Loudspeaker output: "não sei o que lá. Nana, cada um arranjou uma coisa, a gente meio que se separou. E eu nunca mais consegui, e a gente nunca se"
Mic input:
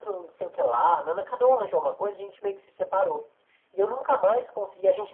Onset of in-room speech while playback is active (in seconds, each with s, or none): none